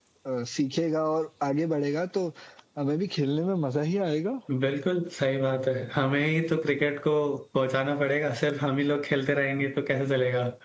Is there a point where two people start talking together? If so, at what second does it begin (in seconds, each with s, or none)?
none